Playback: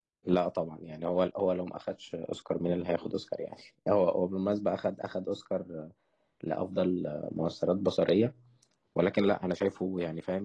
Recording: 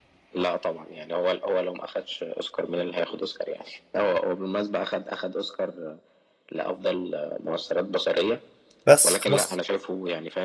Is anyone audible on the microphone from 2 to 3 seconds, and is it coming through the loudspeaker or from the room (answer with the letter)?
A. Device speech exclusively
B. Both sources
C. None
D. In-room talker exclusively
A